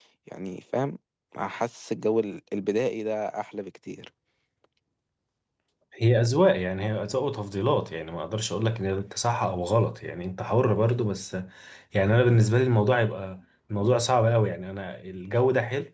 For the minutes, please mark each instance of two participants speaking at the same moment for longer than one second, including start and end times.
none

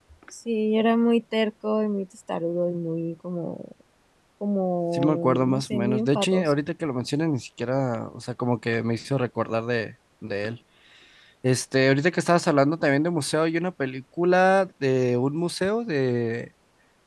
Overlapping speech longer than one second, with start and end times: 4.9-6.5

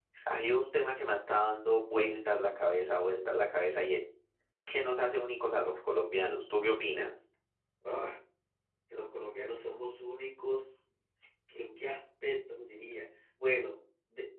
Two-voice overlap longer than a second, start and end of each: none

